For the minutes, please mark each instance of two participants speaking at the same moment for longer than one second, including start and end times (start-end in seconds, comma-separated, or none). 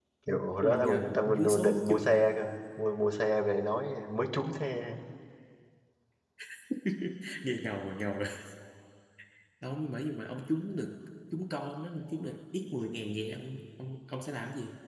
0.6-1.9